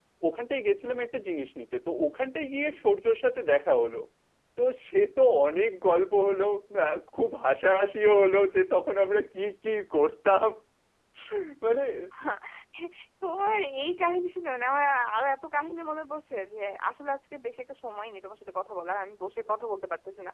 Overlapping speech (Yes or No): No